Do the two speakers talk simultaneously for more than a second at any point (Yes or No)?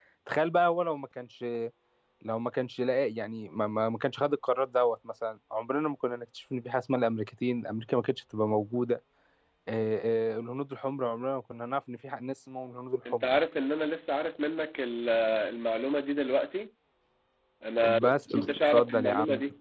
Yes